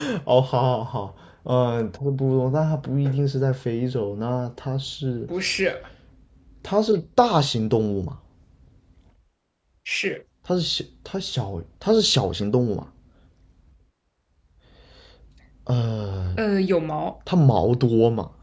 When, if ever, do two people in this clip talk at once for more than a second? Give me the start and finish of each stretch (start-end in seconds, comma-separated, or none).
none